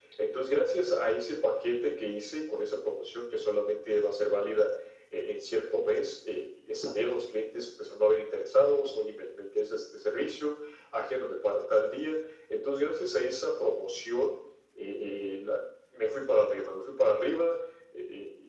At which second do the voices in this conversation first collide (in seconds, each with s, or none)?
none